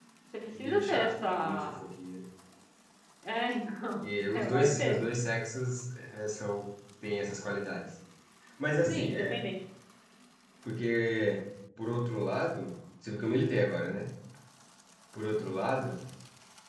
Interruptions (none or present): present